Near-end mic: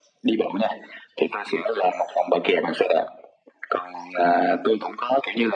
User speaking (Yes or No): No